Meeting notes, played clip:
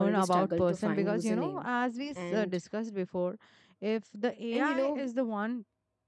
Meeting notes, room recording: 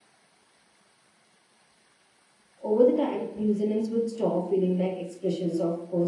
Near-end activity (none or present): present